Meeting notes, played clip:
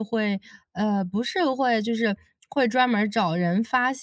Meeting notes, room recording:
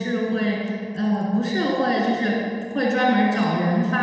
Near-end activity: none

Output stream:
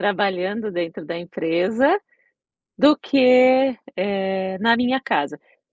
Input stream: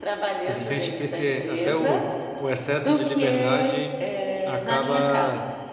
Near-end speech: present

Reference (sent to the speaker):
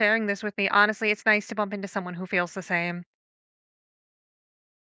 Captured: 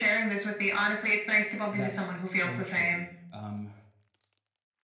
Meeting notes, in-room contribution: present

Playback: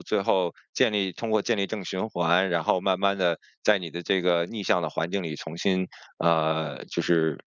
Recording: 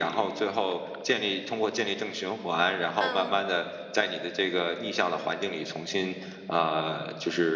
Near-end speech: present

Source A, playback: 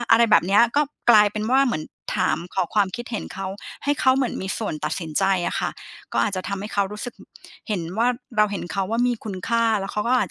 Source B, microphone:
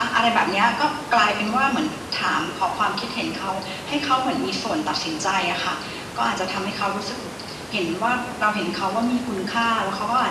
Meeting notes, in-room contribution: none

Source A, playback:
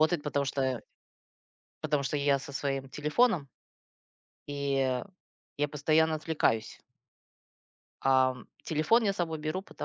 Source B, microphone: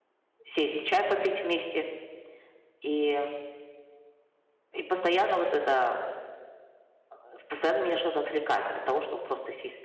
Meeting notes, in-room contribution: present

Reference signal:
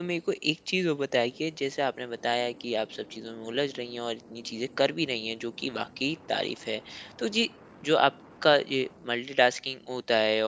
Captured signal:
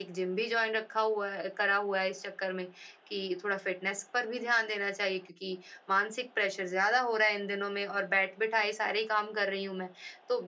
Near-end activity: present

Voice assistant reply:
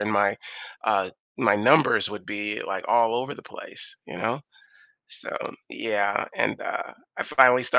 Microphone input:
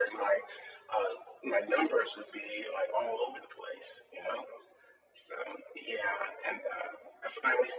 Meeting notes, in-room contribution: none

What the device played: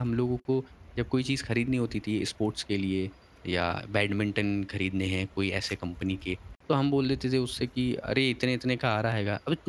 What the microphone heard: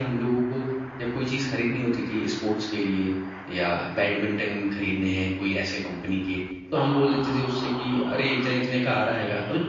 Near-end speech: none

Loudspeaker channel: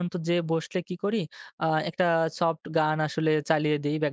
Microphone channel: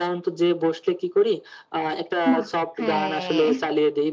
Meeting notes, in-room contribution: present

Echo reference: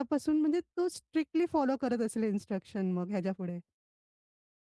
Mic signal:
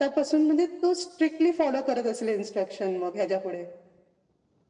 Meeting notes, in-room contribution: none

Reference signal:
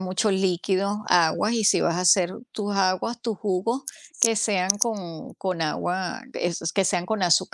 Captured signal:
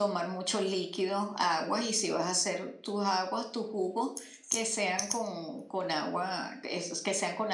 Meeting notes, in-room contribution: none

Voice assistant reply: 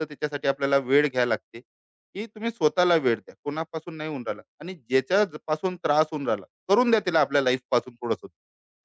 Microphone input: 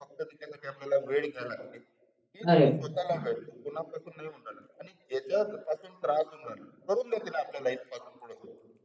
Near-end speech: present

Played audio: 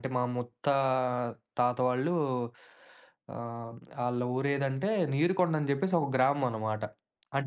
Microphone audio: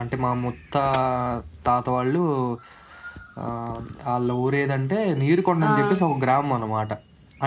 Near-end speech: present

